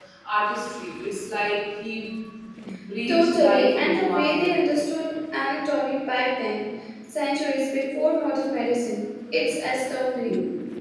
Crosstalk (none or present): present